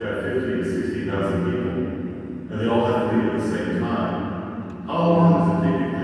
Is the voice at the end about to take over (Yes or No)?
No